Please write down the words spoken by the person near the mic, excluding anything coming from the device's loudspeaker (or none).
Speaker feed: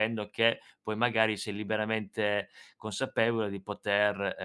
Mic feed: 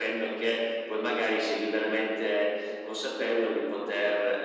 none